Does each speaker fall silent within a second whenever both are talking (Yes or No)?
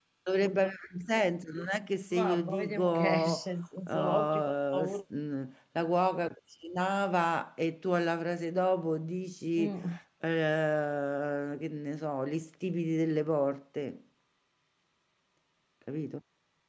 No